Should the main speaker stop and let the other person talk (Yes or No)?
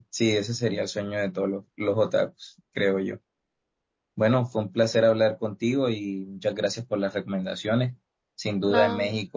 No